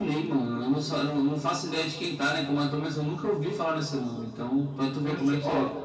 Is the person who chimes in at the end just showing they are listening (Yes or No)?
No